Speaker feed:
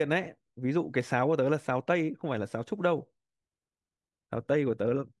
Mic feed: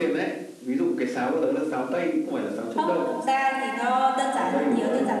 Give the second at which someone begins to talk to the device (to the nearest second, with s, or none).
3 s